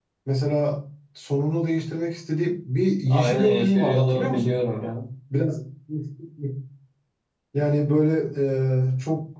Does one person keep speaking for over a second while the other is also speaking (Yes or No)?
Yes